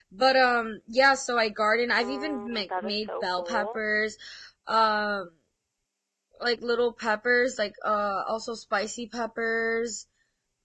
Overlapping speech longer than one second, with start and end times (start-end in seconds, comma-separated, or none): 2.0-3.8